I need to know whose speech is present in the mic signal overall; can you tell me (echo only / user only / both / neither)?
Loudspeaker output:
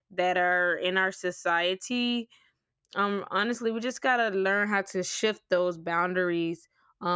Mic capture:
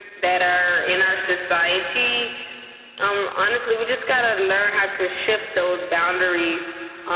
echo only